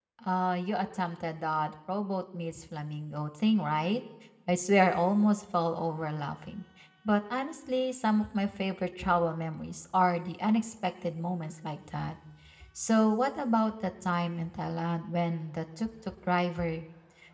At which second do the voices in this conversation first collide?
none

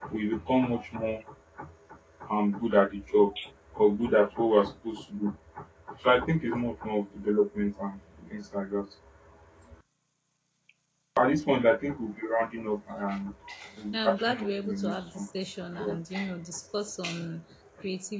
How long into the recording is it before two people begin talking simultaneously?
13.9 s

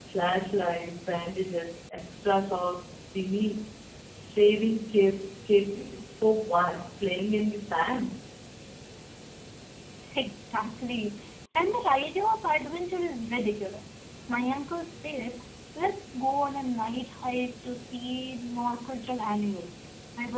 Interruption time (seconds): none

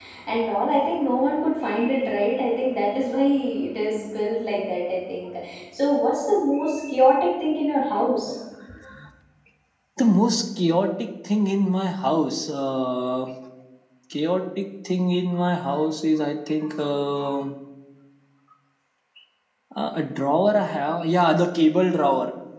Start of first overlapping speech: none

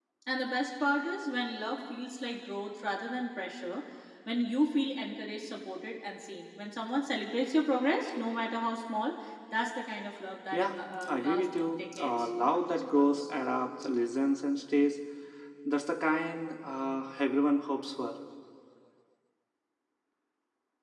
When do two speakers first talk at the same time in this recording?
10.5 s

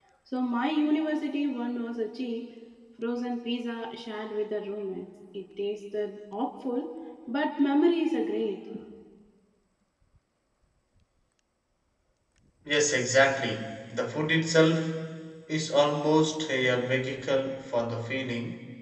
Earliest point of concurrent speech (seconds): none

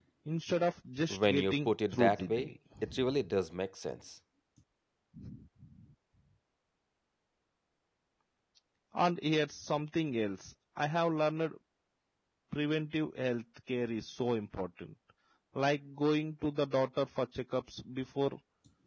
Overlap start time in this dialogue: 1.1 s

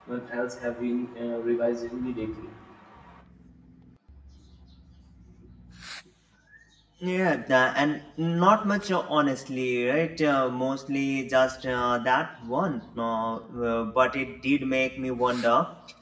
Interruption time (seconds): none

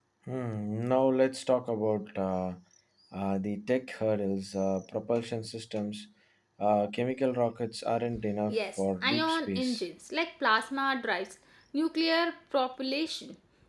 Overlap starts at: 8.5 s

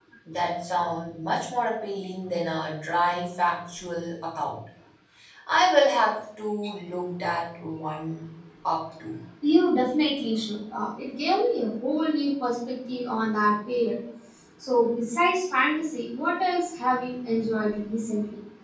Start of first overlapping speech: none

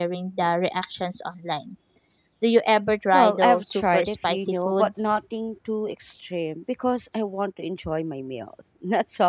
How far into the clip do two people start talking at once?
3.1 s

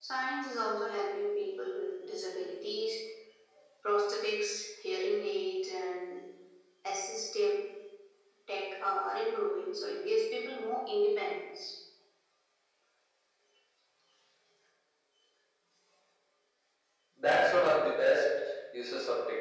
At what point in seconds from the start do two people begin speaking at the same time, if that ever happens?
none

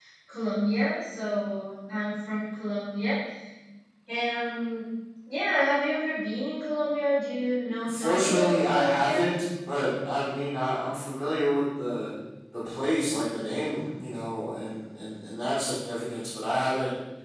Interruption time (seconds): 7.8 s

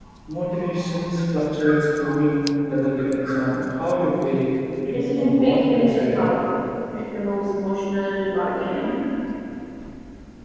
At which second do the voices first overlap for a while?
4.9 s

